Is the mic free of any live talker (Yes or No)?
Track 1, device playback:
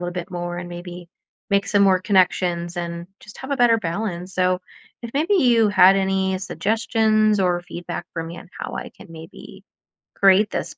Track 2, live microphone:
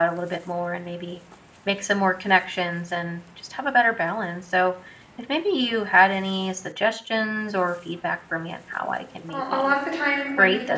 No